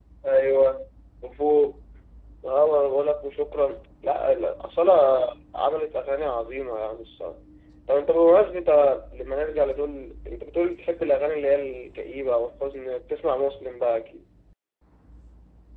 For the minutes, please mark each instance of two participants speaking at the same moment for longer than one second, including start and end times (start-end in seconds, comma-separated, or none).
none